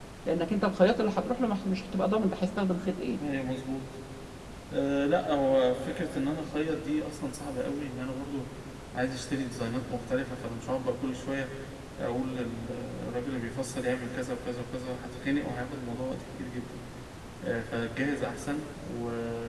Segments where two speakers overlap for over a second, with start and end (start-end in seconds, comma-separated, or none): none